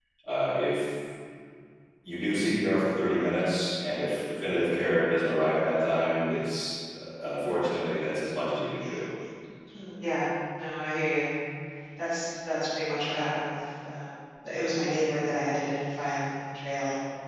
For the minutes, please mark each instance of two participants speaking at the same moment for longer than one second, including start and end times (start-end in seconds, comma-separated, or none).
none